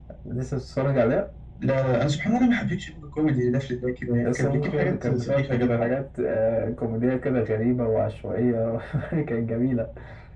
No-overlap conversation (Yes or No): No